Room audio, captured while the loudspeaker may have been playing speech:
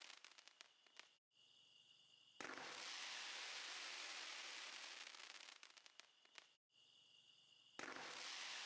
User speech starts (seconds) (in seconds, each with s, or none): none